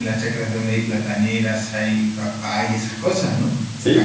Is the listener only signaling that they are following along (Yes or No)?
No